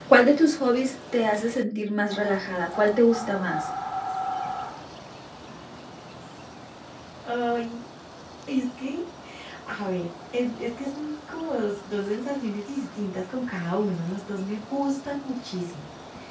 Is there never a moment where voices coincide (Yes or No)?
Yes